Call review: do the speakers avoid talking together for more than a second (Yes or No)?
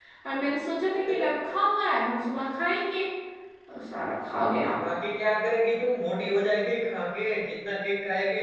Yes